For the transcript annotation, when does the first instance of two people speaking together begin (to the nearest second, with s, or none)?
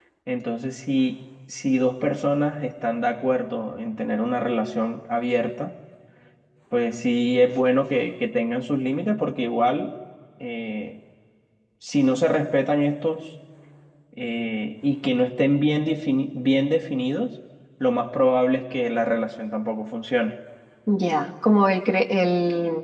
none